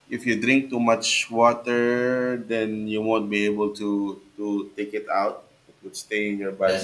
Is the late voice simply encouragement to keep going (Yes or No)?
Yes